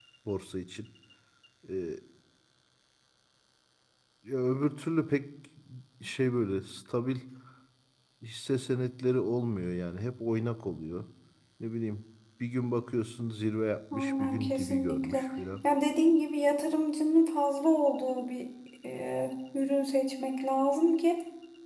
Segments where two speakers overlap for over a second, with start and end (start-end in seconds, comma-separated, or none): 13.9-15.3